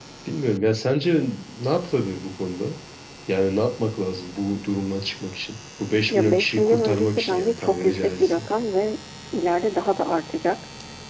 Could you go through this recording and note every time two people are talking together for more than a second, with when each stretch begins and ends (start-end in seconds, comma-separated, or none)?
6.1-8.4